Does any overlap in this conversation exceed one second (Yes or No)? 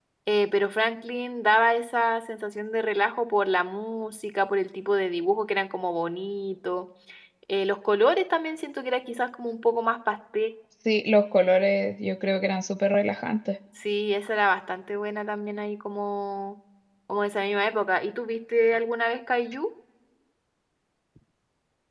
No